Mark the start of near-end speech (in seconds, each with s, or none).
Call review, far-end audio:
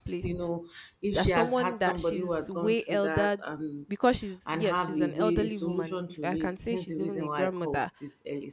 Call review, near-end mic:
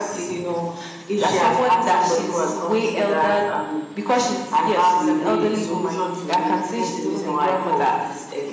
none